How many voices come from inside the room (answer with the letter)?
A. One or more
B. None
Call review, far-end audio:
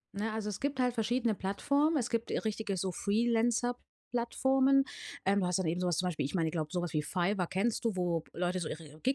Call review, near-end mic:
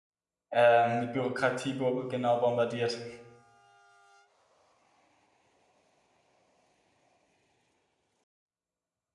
A